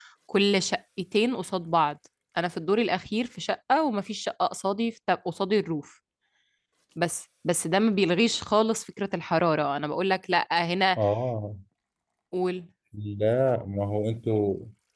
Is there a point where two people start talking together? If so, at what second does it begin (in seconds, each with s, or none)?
none